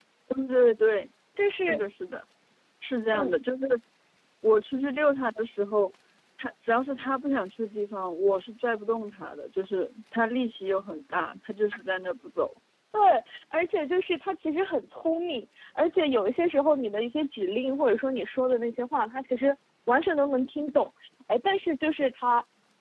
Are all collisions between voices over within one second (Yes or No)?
Yes